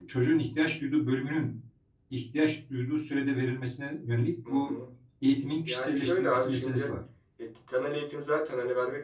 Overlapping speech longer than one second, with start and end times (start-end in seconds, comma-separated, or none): 5.7-6.9